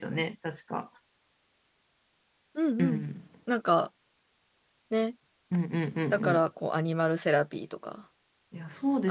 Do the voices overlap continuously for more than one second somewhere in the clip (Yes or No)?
No